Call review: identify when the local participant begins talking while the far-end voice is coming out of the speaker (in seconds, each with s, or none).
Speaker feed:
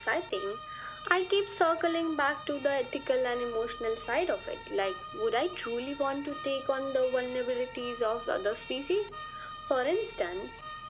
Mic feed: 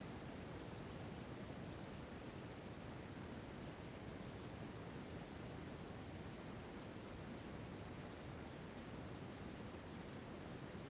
none